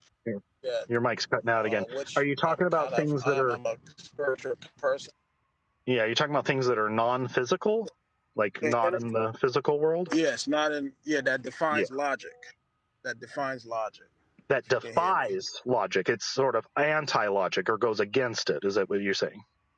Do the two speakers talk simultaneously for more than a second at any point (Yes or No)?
Yes